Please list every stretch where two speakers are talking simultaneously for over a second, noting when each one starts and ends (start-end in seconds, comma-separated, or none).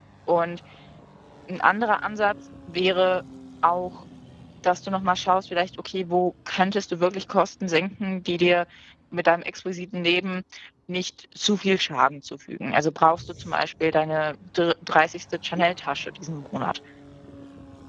none